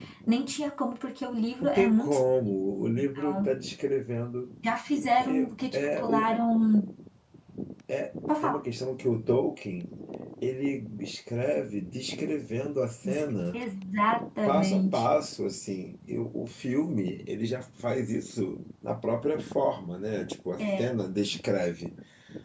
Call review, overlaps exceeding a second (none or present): present